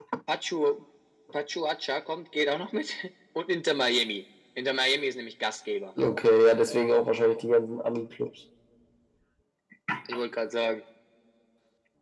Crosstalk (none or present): none